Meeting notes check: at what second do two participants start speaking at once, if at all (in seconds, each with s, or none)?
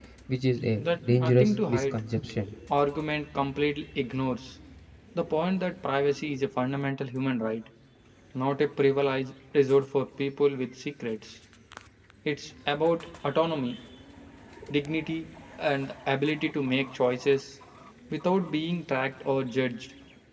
0.8 s